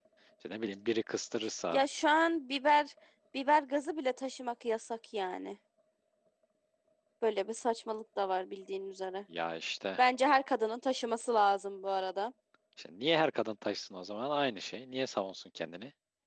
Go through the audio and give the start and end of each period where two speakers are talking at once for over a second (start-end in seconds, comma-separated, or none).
none